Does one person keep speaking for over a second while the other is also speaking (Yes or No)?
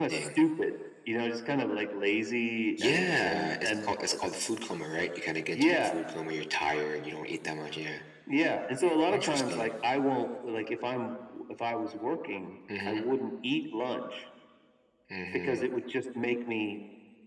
Yes